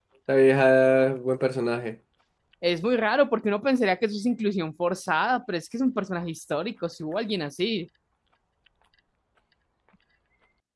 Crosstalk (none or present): none